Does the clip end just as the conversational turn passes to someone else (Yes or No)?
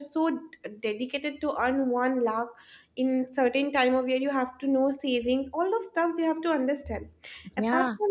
No